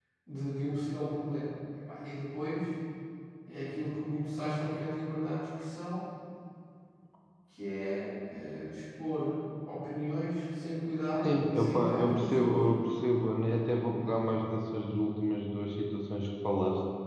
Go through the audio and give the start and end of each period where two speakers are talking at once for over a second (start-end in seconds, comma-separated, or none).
11.2-12.6